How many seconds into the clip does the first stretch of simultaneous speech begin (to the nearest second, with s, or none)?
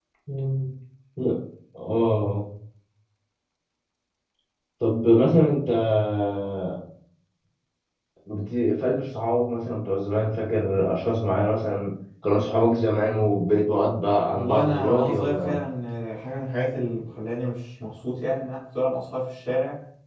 14 s